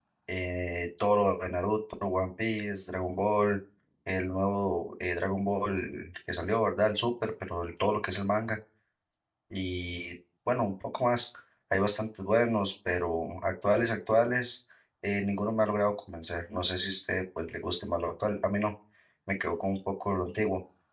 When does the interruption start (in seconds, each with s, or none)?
none